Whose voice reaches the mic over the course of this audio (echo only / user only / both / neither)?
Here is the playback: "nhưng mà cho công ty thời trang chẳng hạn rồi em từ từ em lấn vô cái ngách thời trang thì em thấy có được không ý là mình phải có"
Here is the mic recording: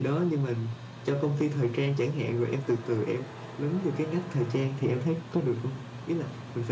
echo only